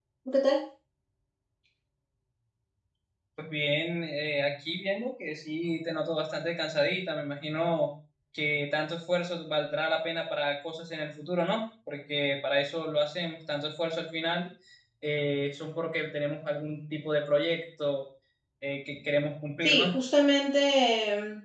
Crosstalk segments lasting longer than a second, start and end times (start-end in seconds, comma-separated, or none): none